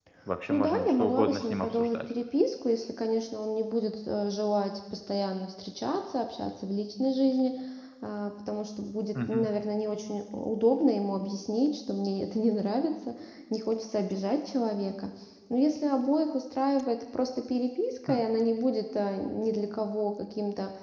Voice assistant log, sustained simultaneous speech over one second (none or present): present